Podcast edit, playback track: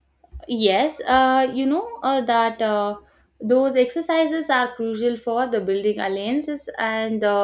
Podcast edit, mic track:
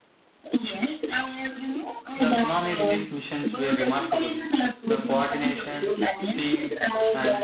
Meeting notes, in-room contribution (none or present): present